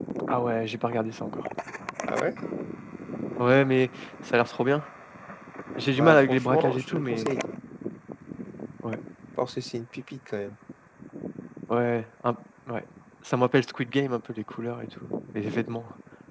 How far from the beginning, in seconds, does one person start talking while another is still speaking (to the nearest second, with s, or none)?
6 s